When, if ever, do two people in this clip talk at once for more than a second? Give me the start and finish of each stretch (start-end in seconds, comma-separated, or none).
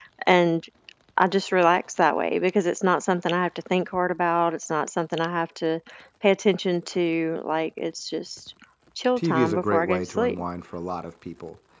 9.2-10.4